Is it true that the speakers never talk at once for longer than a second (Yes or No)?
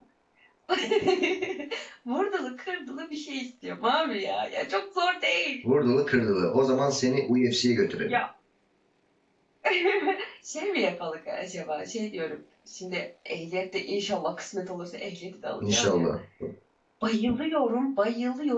Yes